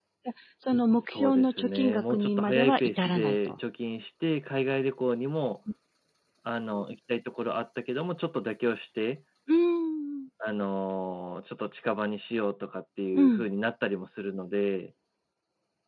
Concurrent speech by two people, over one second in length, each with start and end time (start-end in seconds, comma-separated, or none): 1.0-3.5